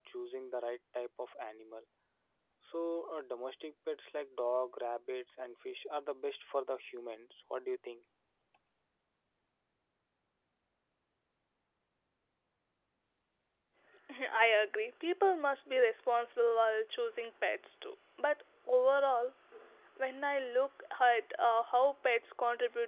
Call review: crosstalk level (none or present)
none